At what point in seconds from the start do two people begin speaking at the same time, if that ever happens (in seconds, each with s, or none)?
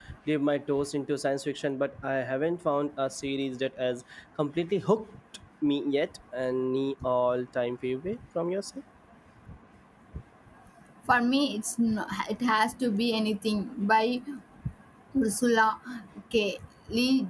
none